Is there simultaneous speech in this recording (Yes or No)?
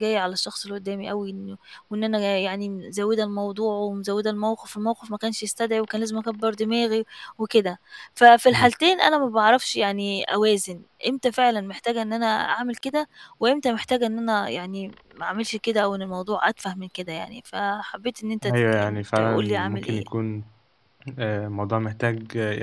Yes